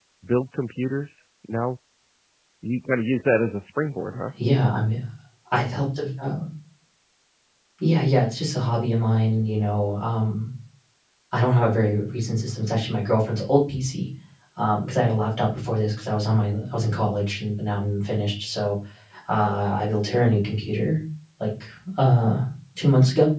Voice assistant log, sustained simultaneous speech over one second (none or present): none